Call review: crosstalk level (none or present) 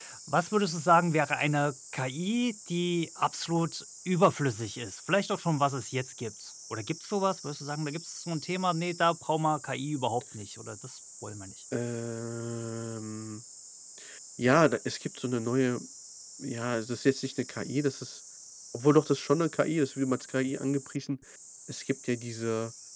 none